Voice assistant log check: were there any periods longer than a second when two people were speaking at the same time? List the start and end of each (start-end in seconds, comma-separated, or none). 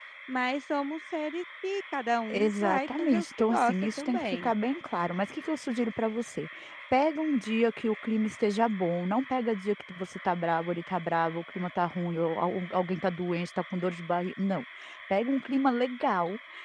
2.3-4.5